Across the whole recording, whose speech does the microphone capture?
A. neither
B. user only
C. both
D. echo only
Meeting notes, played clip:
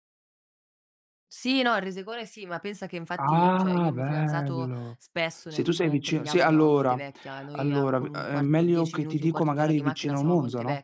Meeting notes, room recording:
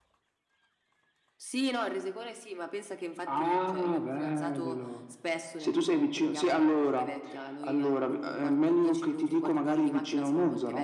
D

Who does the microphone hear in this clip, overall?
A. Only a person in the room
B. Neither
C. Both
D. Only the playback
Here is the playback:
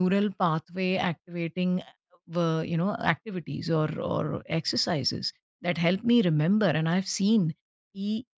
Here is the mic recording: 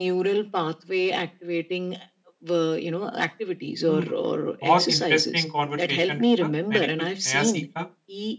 C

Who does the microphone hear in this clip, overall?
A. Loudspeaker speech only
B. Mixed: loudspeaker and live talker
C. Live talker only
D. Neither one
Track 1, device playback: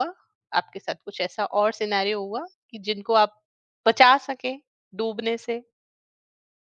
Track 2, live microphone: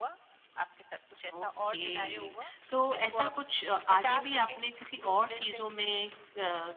B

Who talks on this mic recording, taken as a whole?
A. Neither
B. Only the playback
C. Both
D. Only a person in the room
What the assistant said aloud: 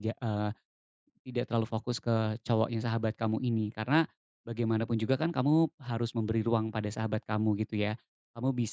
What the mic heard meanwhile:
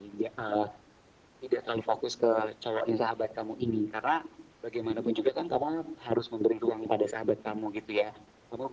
B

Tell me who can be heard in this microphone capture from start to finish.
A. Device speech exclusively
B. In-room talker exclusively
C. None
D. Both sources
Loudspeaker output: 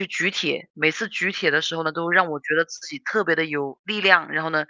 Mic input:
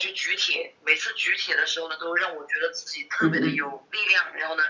D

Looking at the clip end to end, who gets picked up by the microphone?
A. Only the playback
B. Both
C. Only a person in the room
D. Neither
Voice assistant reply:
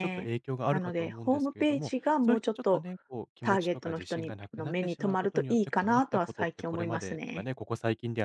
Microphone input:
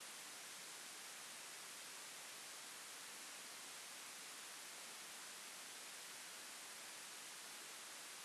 D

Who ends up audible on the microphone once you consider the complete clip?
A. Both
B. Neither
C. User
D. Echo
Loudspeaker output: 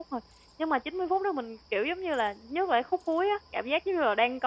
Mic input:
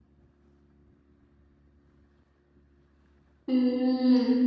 C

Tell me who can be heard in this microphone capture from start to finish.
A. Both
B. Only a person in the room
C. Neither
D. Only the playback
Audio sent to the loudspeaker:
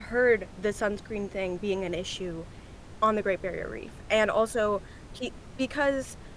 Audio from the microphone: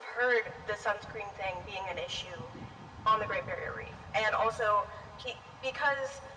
D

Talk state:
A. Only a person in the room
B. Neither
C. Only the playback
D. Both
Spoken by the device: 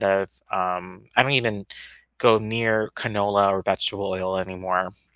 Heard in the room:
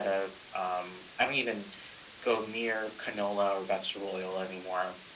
C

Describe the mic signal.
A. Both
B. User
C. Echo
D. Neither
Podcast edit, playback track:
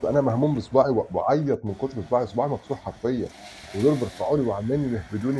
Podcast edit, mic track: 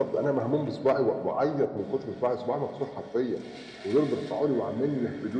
C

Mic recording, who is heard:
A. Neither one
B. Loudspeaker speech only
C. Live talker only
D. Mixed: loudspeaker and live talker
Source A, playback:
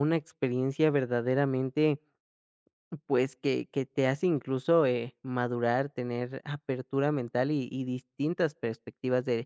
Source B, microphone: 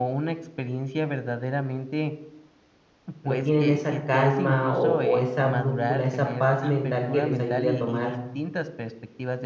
D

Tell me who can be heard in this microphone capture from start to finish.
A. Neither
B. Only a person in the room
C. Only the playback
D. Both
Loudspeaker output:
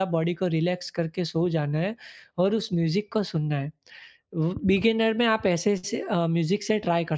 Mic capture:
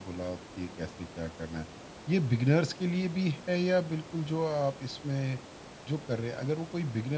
B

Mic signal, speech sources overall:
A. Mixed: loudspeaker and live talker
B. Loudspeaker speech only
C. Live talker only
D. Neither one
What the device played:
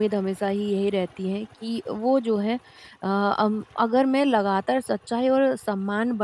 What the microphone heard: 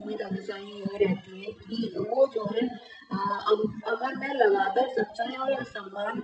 B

